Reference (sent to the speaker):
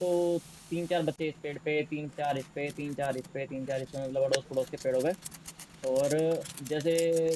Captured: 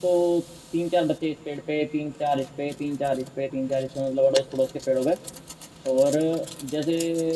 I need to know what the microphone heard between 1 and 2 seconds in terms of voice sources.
echo only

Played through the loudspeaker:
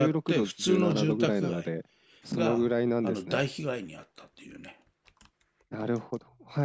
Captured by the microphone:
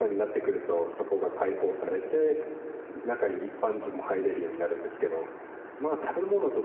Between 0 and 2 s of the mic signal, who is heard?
user only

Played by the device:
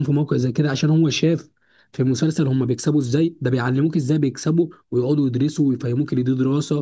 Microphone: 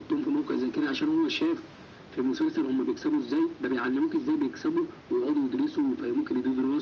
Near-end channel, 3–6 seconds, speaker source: echo only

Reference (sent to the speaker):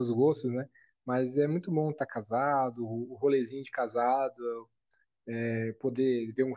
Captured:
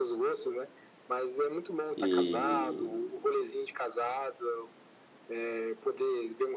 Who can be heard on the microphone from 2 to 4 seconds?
both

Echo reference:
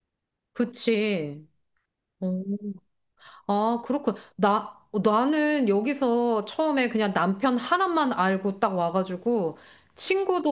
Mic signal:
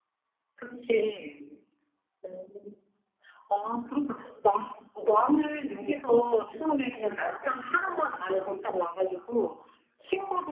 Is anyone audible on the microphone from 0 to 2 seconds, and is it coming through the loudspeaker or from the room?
echo only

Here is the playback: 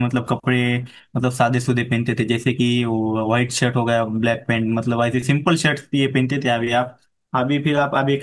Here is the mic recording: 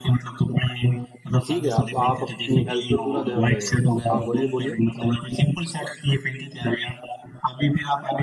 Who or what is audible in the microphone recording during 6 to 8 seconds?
echo only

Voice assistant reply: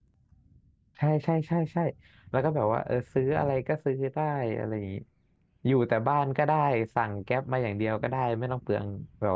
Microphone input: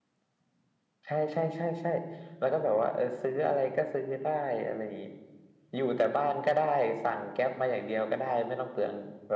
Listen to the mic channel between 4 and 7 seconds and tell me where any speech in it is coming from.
echo only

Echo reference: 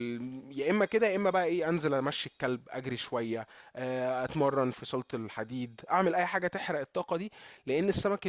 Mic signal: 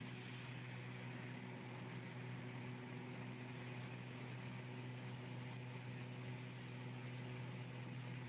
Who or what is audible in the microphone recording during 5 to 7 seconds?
neither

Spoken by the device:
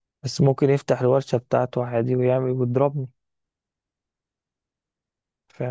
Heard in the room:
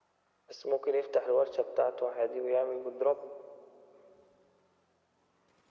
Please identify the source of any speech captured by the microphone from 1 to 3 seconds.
echo only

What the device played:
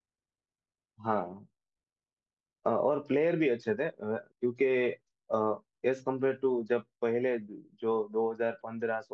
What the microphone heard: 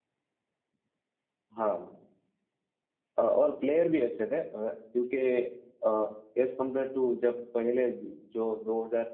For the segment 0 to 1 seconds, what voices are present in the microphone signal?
neither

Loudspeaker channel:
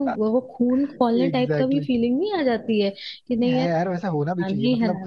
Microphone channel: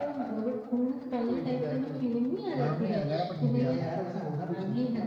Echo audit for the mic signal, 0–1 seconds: echo only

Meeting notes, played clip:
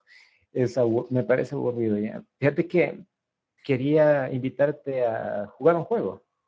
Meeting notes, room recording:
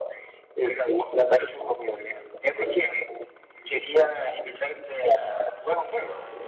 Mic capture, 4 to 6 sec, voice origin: echo only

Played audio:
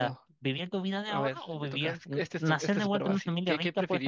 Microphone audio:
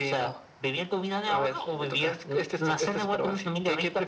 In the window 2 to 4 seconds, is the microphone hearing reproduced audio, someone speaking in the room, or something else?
echo only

